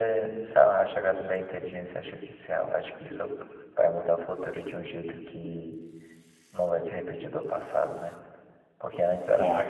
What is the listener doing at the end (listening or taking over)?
listening